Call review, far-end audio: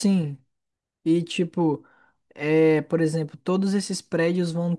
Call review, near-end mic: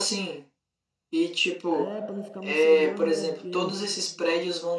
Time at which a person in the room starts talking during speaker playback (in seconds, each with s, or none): 1.7 s